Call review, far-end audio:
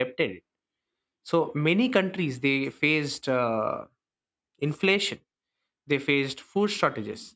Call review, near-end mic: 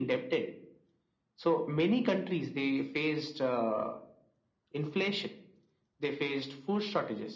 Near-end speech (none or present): none